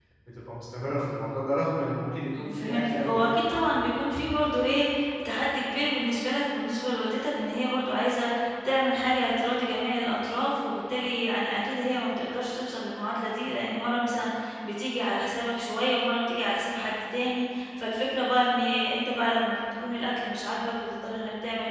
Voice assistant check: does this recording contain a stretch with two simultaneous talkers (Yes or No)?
Yes